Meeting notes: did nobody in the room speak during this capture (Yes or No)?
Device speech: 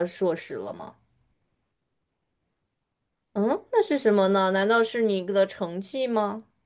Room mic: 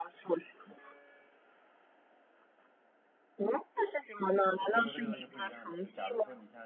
No